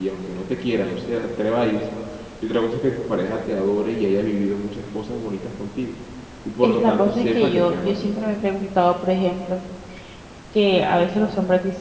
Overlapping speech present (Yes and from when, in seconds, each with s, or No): Yes, from 6.6 s